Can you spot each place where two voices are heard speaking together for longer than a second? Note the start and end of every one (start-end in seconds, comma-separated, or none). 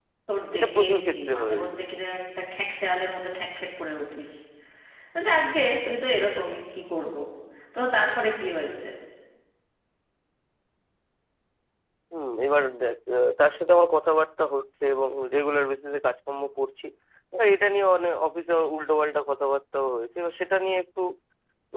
0.6-1.8